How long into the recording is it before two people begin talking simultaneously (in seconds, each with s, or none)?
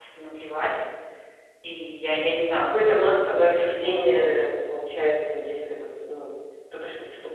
2.5 s